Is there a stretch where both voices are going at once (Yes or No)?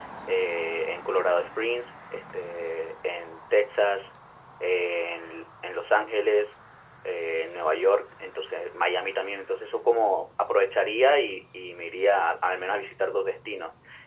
No